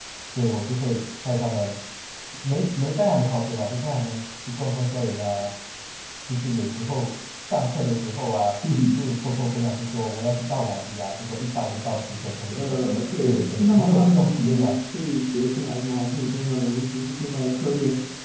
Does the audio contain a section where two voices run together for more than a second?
Yes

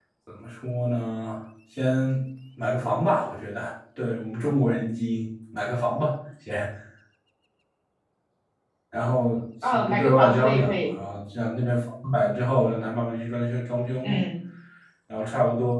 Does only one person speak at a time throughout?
No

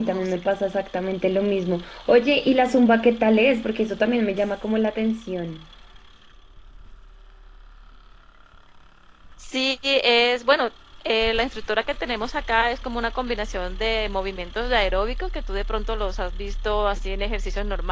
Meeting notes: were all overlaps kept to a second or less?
Yes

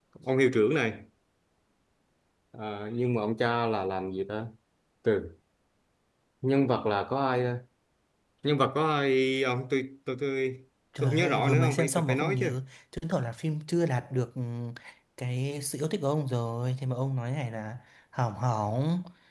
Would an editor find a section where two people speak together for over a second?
Yes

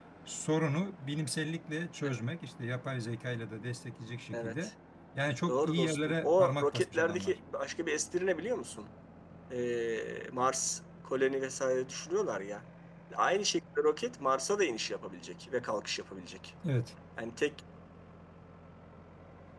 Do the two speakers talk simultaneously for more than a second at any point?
Yes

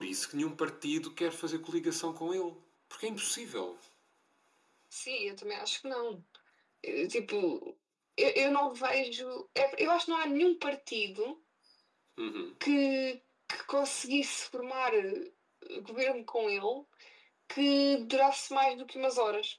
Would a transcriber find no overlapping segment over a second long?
Yes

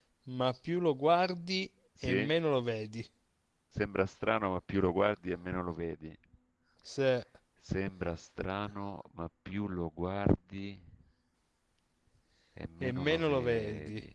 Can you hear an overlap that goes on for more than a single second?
Yes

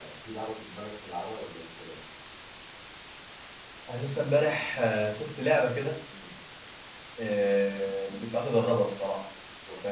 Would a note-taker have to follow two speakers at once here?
No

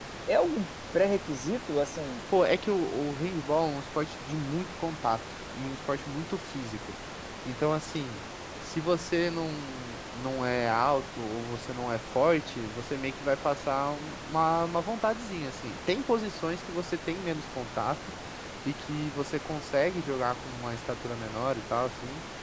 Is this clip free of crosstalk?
Yes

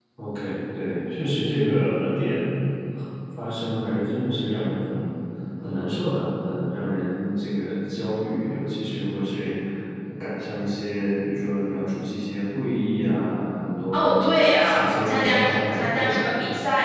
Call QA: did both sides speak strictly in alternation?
No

